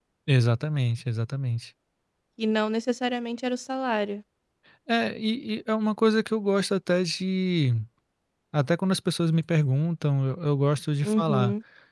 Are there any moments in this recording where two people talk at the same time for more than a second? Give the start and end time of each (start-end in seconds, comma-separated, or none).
none